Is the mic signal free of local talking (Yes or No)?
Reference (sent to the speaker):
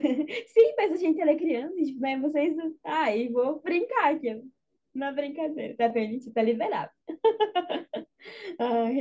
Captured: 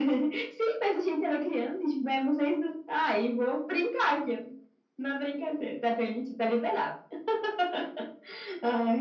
Yes